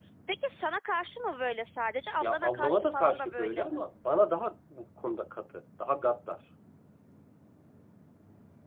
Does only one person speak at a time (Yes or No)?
No